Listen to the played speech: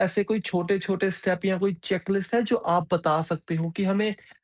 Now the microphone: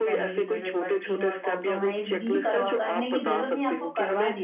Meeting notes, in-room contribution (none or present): present